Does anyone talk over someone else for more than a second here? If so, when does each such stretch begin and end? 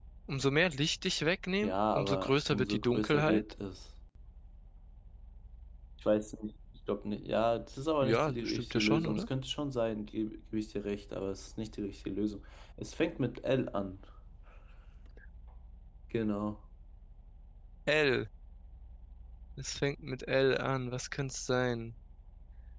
1.6-3.4, 8.0-9.3

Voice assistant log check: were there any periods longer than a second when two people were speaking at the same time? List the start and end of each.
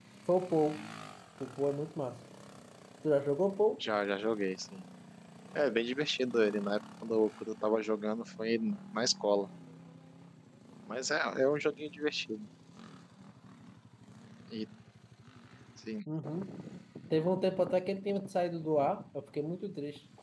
none

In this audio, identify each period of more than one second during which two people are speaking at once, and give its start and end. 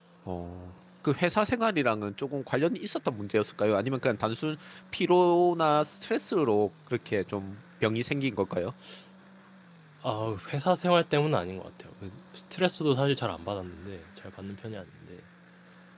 none

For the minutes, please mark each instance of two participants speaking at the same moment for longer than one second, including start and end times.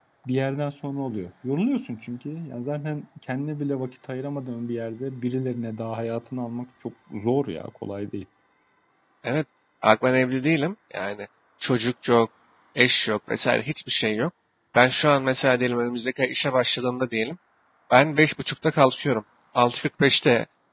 none

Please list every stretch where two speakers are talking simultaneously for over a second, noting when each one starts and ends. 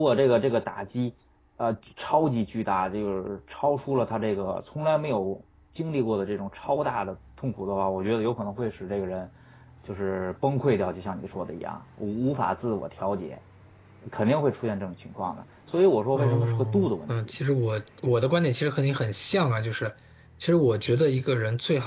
16.1-17.4

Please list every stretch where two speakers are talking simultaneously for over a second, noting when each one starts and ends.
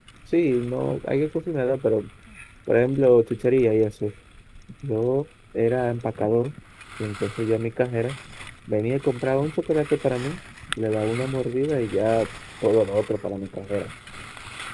none

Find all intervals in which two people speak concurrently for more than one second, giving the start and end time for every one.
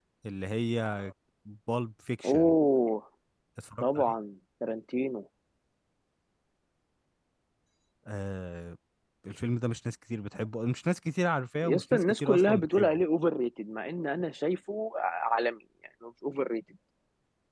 11.6-13.0

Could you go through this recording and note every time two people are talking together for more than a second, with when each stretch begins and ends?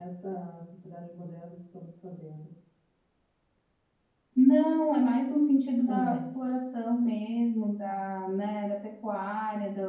none

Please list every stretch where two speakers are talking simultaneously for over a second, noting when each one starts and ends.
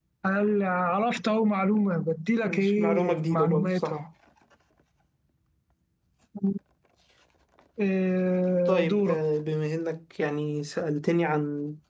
2.4-4.0

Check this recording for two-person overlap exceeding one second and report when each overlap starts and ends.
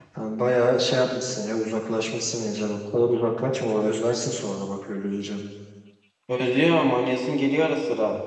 none

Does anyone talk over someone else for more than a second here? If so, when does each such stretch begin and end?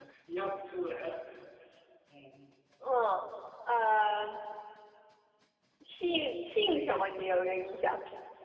none

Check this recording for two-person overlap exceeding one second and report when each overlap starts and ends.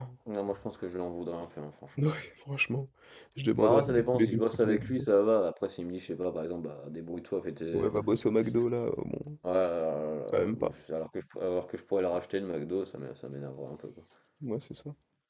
3.6-5.1

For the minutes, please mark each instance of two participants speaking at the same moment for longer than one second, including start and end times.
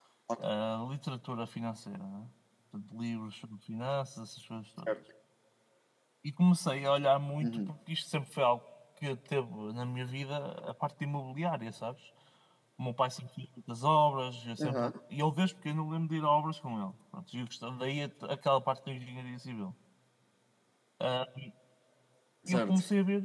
none

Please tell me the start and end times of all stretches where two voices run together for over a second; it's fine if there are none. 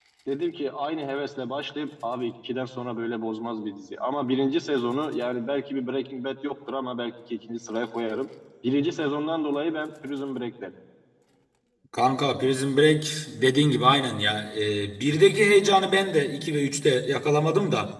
none

